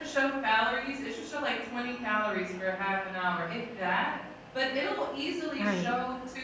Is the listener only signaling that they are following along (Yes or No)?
Yes